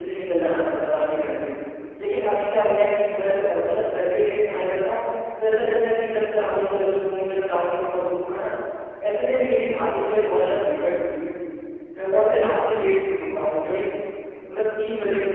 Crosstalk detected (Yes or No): No